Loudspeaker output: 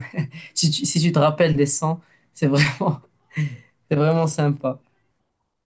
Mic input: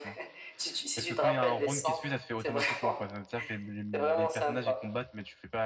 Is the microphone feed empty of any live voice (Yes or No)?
No